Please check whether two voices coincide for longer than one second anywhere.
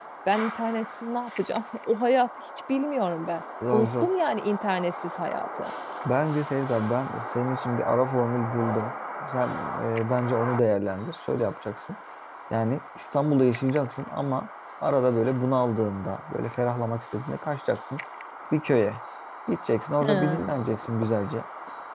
No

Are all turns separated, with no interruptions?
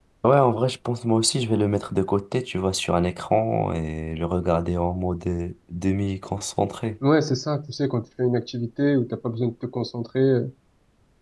Yes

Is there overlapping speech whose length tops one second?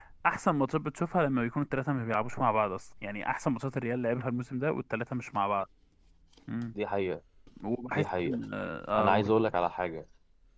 No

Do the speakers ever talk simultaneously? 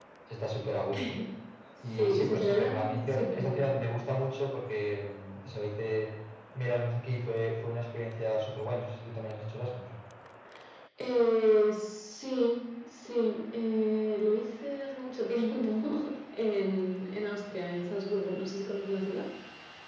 Yes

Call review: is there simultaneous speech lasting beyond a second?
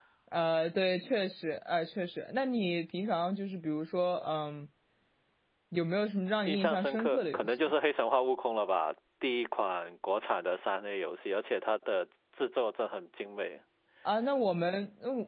Yes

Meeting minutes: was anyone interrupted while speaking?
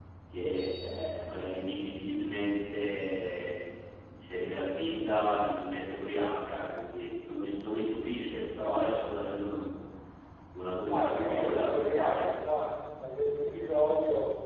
Yes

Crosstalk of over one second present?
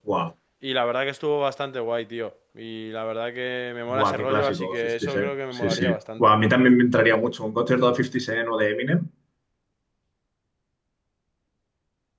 Yes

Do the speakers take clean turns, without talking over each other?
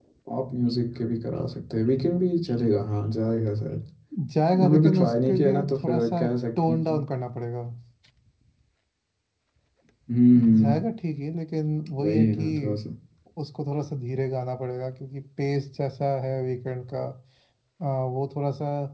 No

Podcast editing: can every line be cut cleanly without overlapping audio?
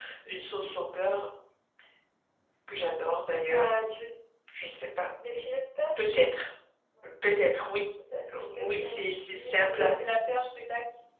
No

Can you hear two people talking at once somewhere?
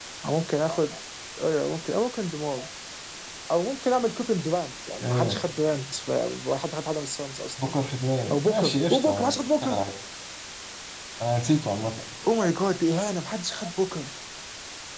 Yes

